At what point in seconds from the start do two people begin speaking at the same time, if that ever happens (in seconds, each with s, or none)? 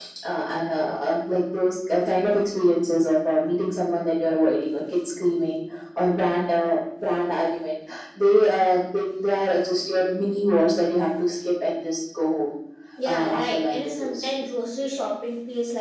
13.0 s